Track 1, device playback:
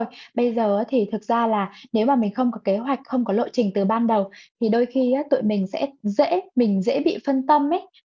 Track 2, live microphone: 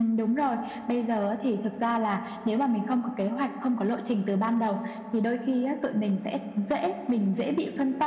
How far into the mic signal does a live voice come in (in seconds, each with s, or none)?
none